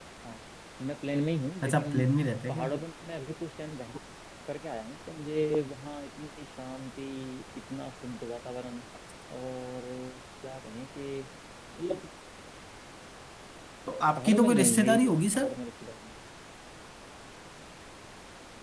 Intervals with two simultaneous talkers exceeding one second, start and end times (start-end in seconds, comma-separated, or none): 14.2-15.6